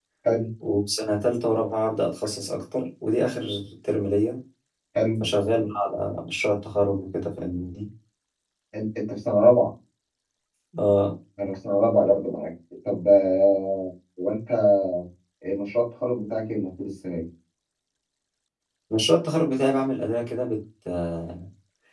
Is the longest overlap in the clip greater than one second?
No

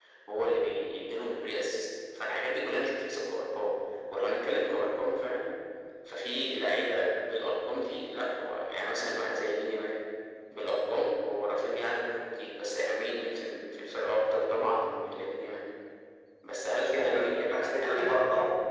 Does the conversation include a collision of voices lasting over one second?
Yes, from 16.7 s

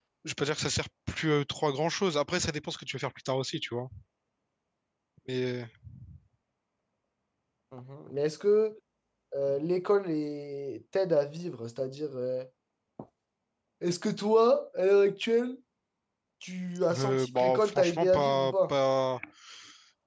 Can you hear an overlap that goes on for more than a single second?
Yes, from 16.9 s

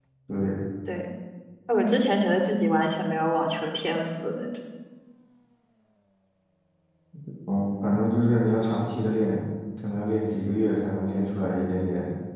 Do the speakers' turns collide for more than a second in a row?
No

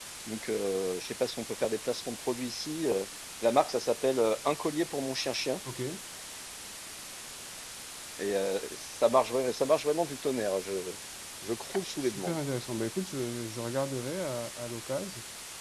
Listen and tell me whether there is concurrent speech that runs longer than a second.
No

